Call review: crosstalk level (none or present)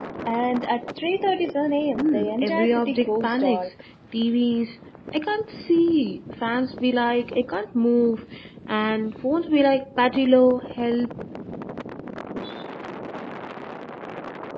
present